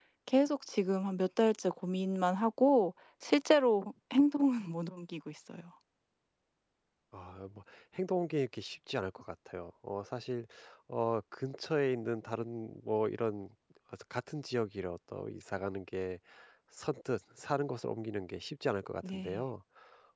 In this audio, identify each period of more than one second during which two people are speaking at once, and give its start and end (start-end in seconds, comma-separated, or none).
none